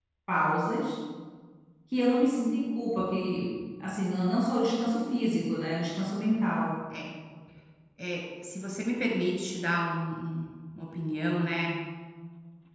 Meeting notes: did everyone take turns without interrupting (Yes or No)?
Yes